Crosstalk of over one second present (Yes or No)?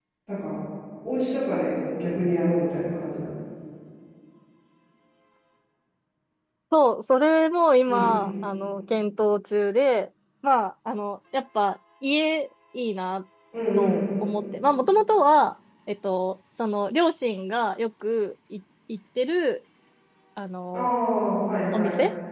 No